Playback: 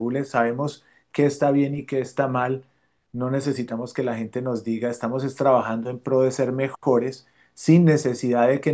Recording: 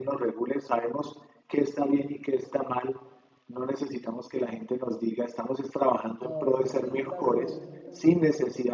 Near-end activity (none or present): present